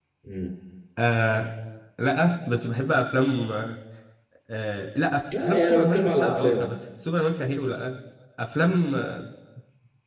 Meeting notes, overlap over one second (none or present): present